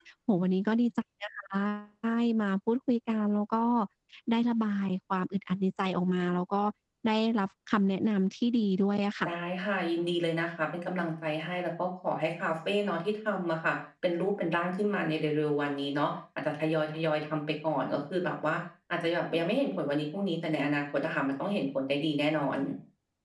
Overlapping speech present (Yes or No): No